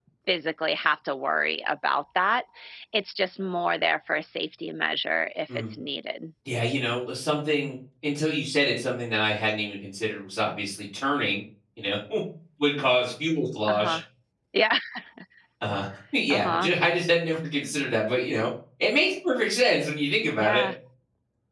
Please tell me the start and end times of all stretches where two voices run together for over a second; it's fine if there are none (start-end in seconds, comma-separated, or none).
none